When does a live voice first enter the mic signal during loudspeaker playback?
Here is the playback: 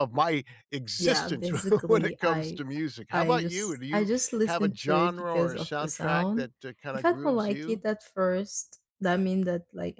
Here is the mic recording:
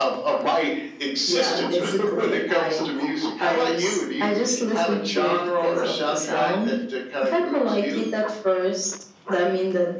none

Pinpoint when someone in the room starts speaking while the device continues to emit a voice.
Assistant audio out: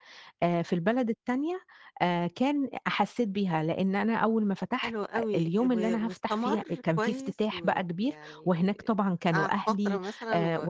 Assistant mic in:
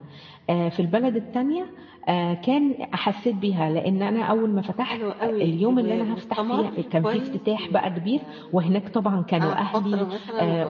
none

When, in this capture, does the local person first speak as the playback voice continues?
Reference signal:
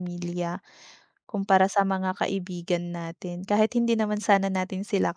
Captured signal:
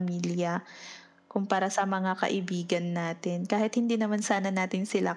none

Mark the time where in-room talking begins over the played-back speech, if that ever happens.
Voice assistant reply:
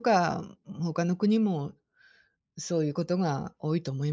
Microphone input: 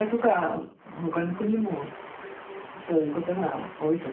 none

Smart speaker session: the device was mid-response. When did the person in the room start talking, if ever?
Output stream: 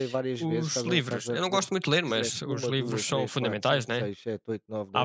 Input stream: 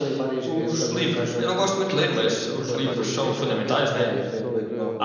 2.7 s

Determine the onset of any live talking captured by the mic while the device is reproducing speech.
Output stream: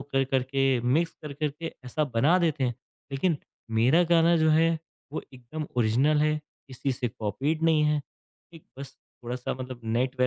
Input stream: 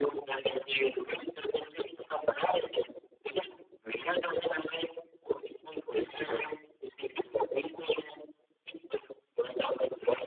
6.1 s

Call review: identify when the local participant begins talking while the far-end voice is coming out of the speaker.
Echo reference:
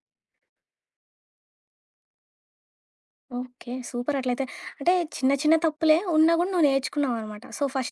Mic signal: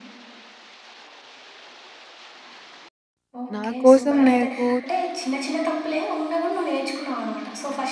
3.5 s

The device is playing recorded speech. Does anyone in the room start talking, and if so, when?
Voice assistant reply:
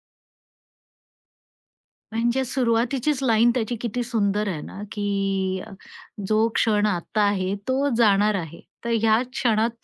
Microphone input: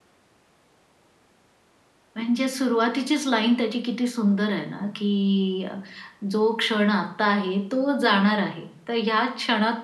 none

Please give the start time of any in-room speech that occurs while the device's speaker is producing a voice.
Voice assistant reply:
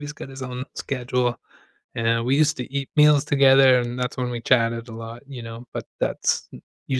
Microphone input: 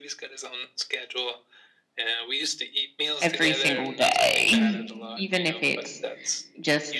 3.2 s

